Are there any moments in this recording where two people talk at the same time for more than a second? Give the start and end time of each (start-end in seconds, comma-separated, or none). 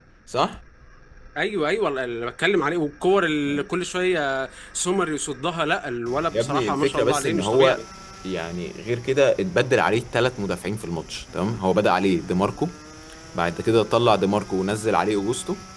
6.3-7.8